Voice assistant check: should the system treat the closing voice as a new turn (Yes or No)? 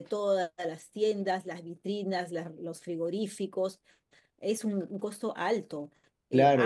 Yes